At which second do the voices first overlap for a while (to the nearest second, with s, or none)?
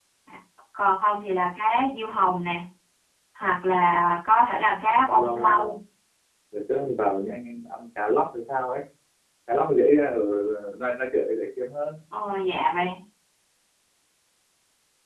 5 s